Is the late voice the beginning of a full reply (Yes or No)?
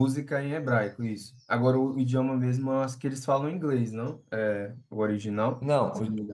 Yes